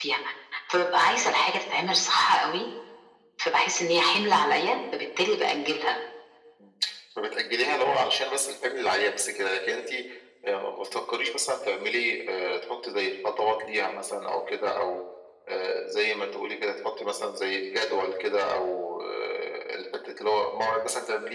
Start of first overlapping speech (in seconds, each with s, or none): none